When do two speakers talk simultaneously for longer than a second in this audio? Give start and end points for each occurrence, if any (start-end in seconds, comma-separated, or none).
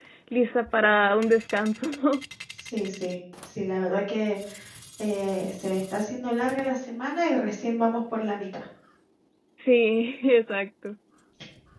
none